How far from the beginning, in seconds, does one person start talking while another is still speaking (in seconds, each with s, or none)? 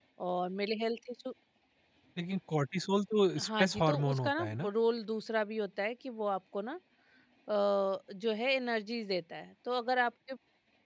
3.4 s